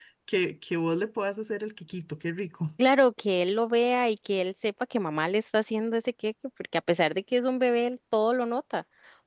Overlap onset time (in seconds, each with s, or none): none